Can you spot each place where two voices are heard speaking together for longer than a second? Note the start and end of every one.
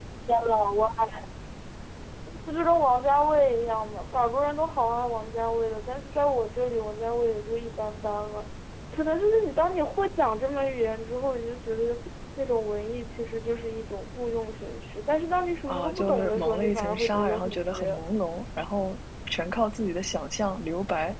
15.7-18.0

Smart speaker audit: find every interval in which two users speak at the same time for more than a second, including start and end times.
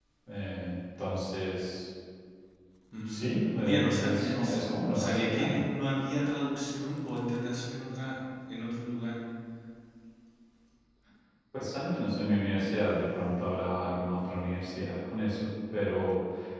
3.1-5.7

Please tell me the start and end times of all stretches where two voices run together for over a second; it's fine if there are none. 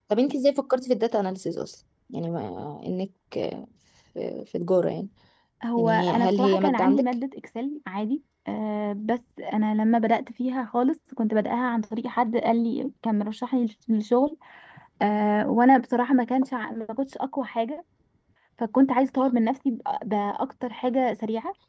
5.8-7.0

